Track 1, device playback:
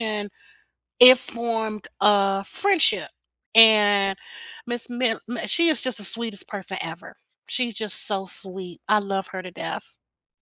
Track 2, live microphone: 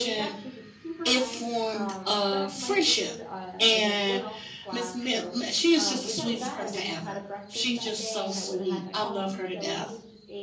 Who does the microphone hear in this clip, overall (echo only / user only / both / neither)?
both